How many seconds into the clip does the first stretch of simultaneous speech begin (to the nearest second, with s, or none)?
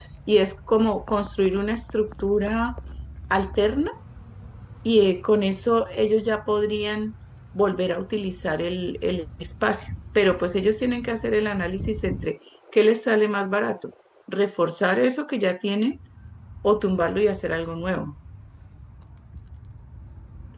none